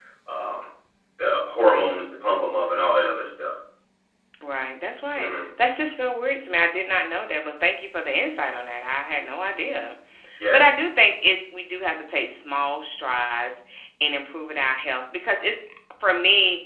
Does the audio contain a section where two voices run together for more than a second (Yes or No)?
No